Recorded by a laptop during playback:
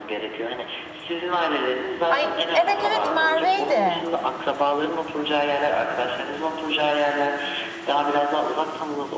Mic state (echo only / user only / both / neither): both